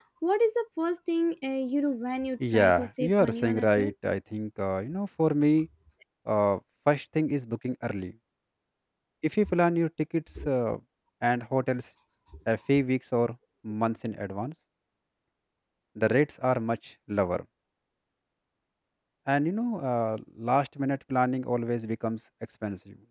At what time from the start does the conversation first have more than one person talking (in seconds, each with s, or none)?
2.4 s